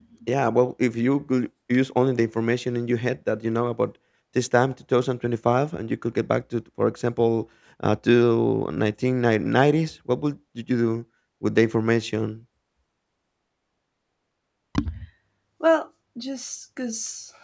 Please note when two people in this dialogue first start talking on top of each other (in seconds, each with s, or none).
none